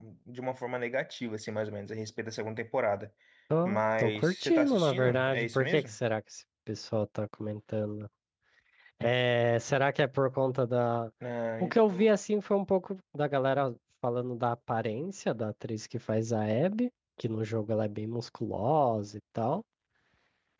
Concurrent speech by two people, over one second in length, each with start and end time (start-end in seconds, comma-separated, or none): 3.6-6.0